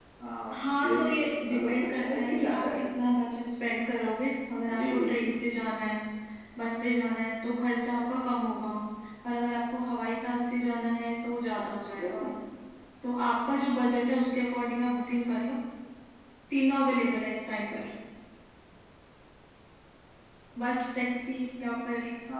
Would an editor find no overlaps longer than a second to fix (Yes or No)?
No